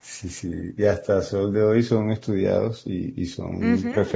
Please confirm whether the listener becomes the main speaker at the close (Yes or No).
No